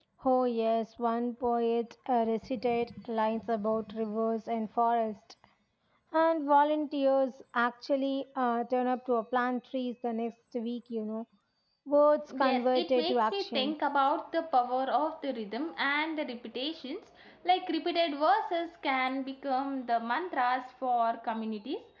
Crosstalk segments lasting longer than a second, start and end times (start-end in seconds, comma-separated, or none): 12.4-13.7